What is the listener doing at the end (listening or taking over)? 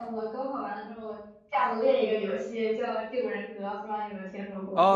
taking over